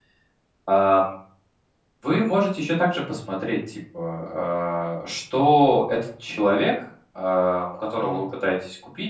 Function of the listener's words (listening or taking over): listening